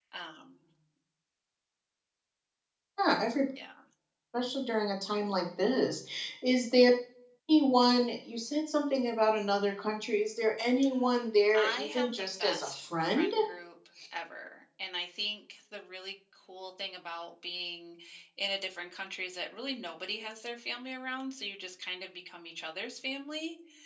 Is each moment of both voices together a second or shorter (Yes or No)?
No